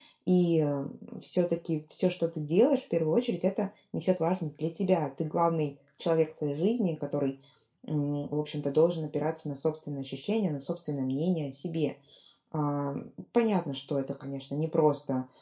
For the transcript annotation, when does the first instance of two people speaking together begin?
none

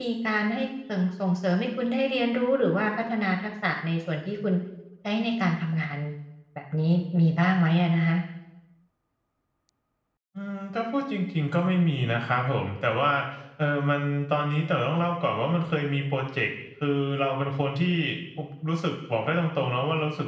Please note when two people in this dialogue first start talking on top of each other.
none

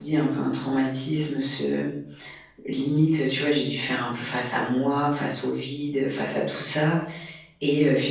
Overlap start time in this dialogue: none

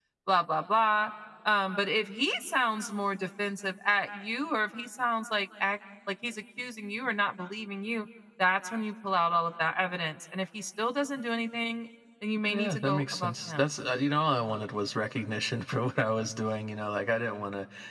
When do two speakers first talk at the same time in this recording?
12 s

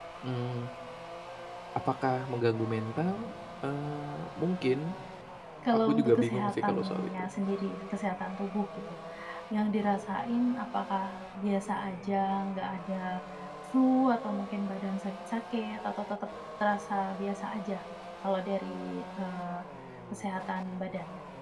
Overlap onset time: 6 s

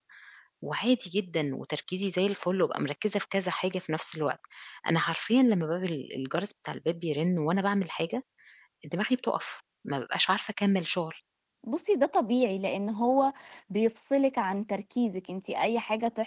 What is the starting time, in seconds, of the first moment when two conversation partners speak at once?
none

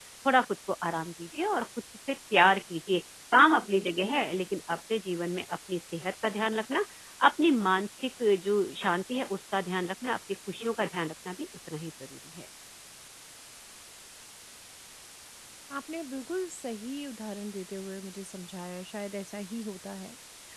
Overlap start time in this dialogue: none

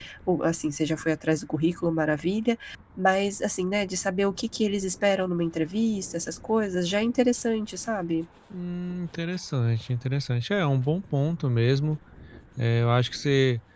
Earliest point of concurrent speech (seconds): none

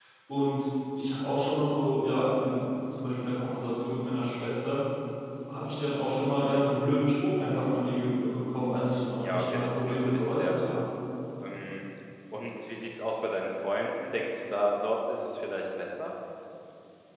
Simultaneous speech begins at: 9 s

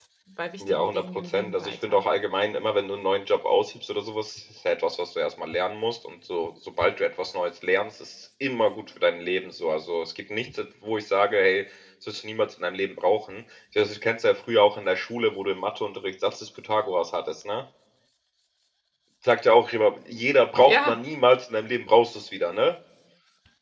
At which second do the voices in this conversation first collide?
1 s

